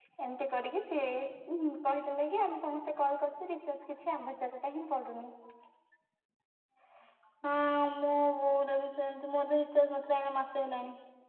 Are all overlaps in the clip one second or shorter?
Yes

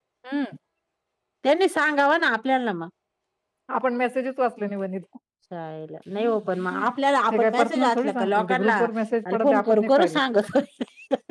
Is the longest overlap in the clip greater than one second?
Yes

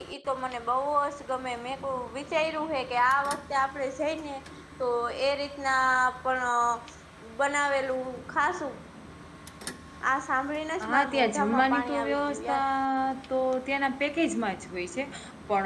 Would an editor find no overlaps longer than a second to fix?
No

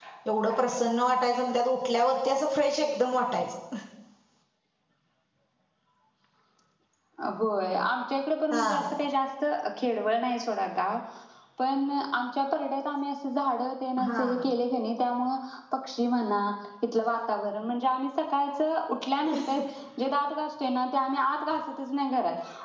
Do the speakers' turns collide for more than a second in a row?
No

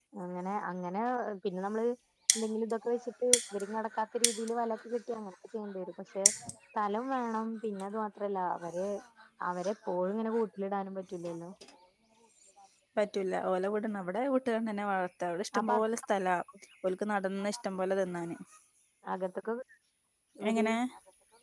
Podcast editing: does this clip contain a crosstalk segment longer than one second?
No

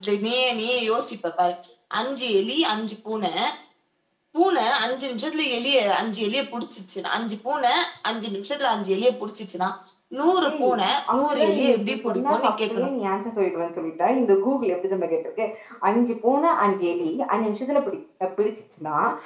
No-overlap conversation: No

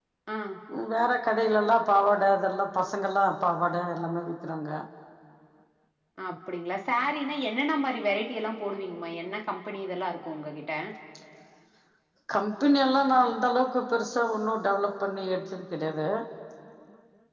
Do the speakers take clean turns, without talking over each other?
Yes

